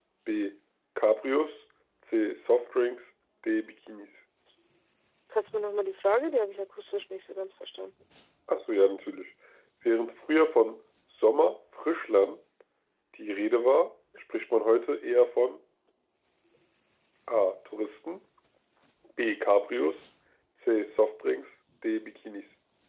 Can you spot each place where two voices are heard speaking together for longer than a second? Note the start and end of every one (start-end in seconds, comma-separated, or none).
none